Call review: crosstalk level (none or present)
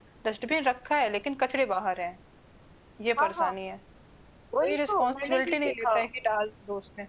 present